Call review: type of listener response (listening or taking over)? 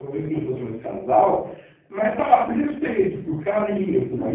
listening